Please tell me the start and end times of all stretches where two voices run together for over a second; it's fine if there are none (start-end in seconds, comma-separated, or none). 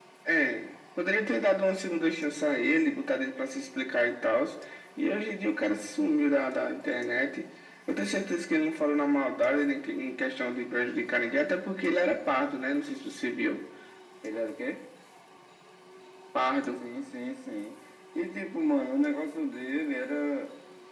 none